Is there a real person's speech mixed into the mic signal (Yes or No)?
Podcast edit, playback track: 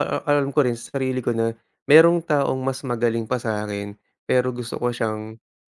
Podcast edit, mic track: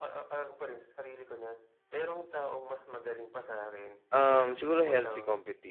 Yes